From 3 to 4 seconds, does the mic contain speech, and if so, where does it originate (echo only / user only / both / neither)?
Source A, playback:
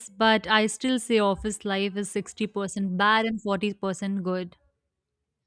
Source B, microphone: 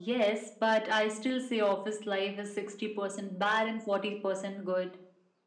echo only